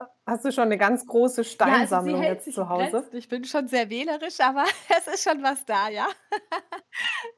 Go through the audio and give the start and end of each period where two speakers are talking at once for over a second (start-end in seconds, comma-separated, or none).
1.6-3.0